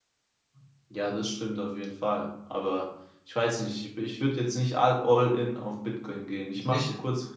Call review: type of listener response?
listening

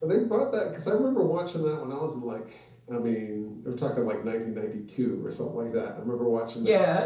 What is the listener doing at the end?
listening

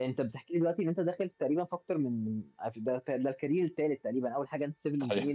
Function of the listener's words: listening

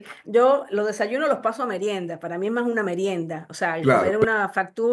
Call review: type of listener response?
listening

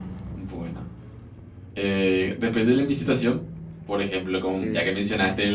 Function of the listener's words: listening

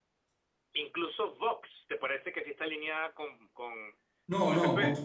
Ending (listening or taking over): taking over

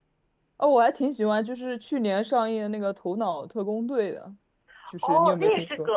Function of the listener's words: taking over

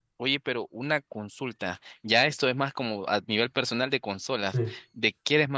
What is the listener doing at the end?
listening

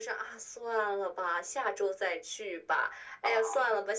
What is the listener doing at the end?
listening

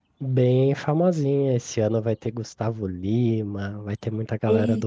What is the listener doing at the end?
listening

